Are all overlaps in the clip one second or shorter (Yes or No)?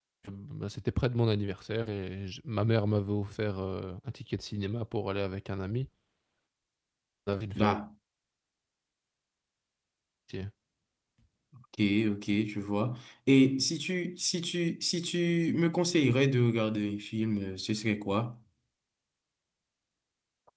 Yes